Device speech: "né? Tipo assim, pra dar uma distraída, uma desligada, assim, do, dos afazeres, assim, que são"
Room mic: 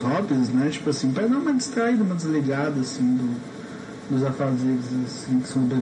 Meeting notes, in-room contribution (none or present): none